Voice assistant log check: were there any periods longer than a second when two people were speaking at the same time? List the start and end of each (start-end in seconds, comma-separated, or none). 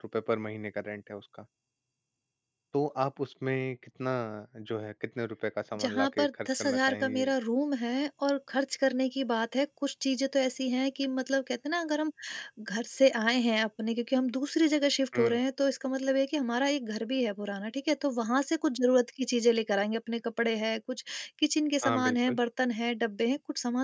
5.8-7.3